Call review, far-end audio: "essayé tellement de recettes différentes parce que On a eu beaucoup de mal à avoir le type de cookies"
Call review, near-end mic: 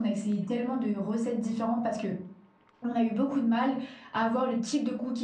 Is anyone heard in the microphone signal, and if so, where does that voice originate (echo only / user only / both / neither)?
echo only